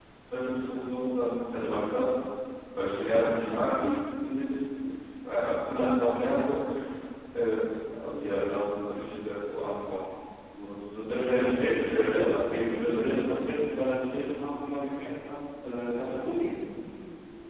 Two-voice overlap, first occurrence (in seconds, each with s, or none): 11.1 s